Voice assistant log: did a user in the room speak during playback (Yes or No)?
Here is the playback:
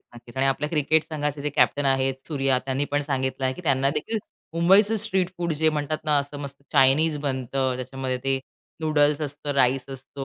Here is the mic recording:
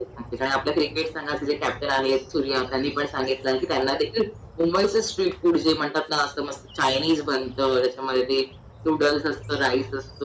No